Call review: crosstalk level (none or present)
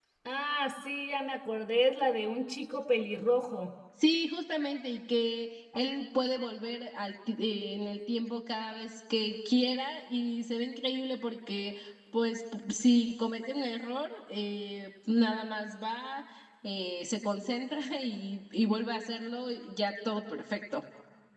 none